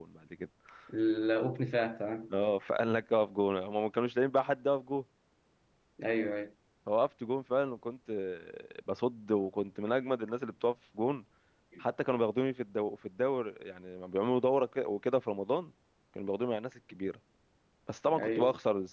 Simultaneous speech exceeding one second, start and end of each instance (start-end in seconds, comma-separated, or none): none